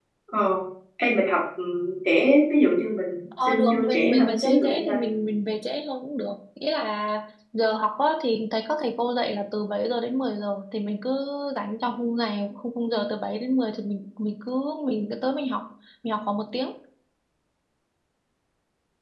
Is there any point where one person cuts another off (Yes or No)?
Yes